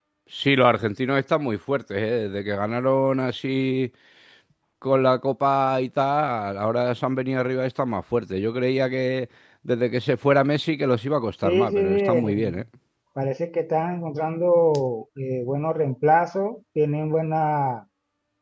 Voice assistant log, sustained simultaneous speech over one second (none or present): present